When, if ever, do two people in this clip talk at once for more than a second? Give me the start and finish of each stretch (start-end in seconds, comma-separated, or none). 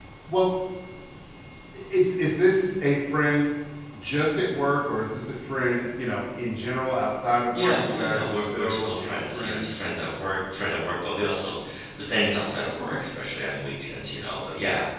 7.5-9.8